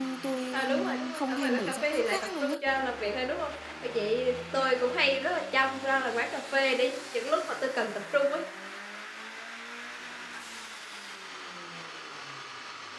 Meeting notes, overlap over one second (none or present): present